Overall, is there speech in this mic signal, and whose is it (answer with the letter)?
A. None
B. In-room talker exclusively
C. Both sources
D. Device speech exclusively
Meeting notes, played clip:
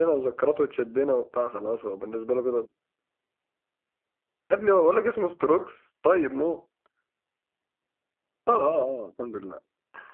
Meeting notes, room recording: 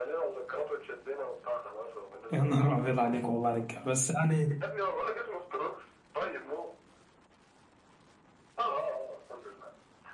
C